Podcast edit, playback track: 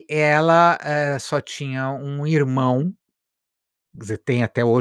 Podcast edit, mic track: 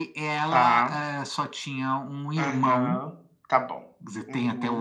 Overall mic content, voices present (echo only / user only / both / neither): both